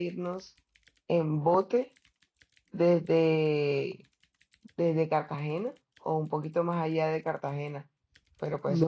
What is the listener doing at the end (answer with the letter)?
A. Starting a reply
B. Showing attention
A